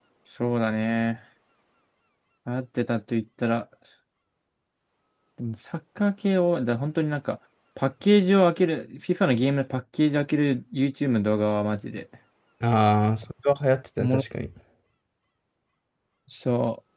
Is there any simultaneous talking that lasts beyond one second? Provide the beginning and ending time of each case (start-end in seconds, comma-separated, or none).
none